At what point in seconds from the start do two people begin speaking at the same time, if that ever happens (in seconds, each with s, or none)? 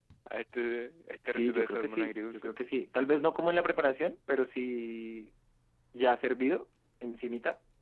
1.3 s